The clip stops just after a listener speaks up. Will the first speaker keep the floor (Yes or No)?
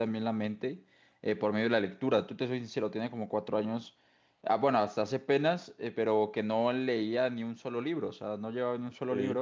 Yes